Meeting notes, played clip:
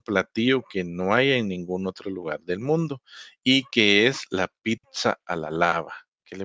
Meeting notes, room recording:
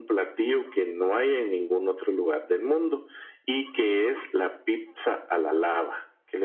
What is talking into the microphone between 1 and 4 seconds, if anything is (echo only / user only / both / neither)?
echo only